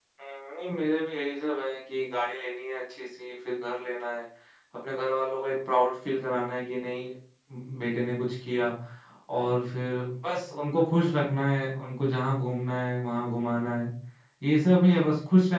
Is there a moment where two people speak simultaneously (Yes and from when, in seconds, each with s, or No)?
No